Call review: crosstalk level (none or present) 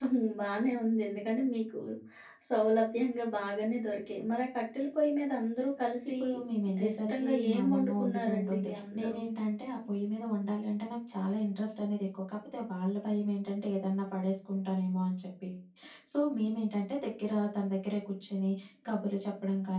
present